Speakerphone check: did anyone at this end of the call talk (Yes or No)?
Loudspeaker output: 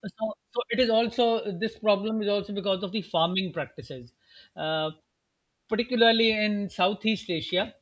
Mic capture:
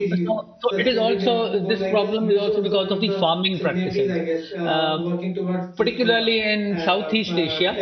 Yes